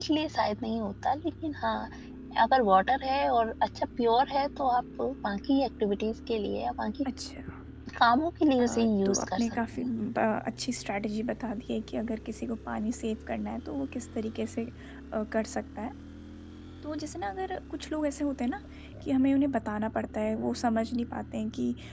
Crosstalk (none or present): present